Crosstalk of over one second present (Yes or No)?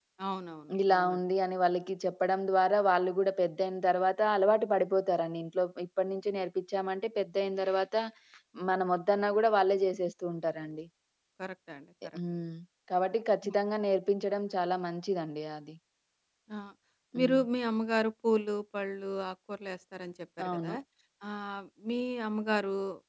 No